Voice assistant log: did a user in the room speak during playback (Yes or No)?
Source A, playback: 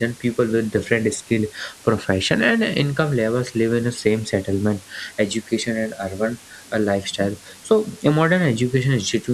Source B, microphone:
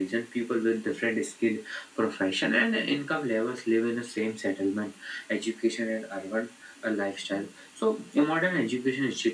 No